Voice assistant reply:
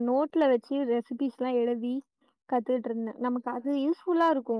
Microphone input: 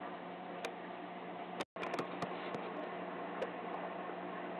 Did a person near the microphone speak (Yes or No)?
No